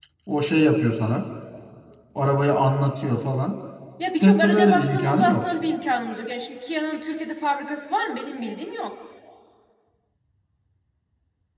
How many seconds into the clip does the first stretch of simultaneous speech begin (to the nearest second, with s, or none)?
4 s